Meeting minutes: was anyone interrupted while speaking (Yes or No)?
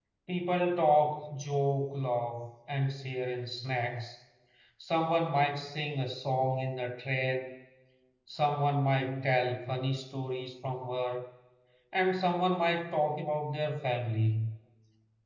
No